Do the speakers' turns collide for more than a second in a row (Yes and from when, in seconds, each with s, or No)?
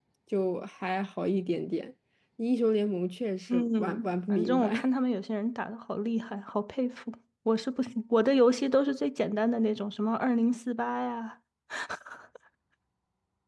Yes, from 3.5 s